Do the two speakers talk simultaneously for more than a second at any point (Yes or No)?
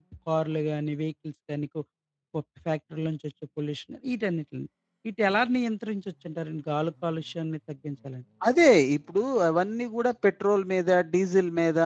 No